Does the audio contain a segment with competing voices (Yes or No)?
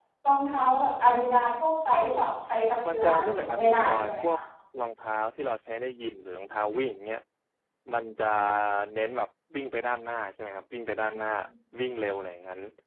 Yes